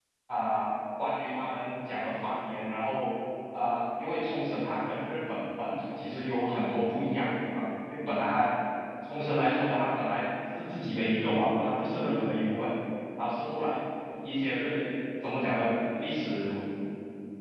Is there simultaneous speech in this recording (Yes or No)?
No